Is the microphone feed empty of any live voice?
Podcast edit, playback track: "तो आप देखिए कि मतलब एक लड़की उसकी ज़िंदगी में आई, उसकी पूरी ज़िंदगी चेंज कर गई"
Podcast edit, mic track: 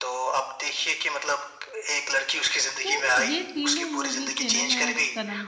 No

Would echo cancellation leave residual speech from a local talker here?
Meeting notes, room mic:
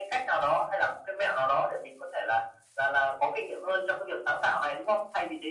No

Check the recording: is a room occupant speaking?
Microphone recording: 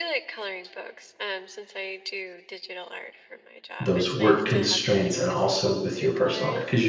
Yes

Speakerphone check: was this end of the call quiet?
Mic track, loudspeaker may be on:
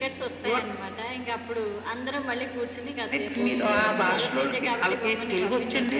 No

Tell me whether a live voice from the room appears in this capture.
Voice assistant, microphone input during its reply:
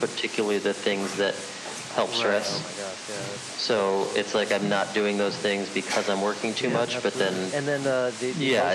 Yes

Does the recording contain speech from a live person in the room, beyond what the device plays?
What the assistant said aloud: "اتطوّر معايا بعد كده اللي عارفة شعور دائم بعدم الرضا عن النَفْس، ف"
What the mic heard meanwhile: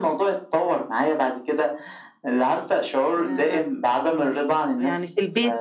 Yes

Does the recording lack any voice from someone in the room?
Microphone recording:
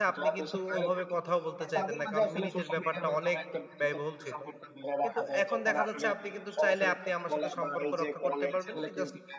No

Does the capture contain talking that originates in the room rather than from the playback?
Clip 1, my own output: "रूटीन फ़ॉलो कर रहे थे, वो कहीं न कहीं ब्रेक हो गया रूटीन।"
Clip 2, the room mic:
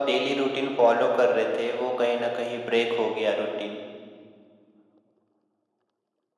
No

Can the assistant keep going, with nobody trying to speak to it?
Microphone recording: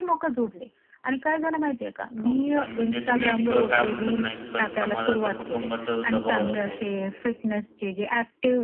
No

